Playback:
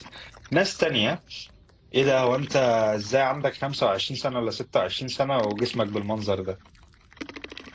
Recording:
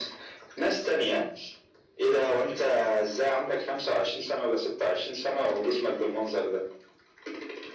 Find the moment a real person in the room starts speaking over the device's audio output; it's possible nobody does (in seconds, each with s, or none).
none